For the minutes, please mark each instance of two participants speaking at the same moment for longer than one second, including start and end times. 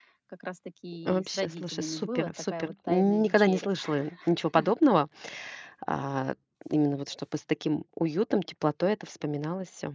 1.1-3.7

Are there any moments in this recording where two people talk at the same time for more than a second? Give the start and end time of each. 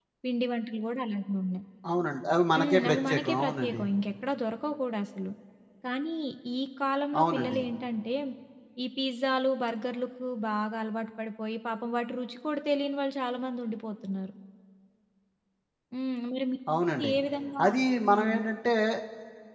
2.5-3.8

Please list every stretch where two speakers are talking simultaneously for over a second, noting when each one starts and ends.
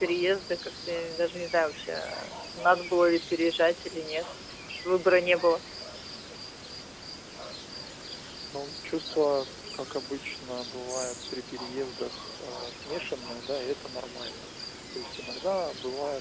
none

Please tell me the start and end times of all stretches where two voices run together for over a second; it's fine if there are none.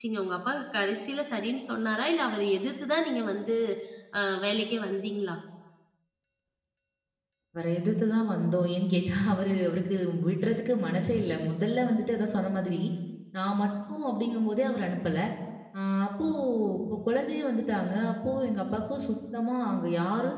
none

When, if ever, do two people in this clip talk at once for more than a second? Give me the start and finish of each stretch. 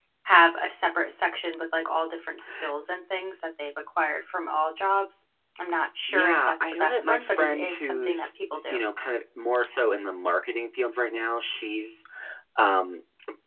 6.1-8.2

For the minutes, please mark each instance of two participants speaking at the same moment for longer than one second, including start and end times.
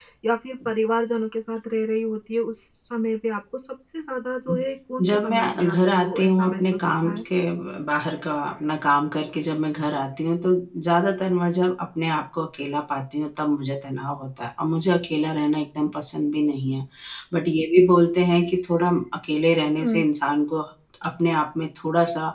5.0-7.2

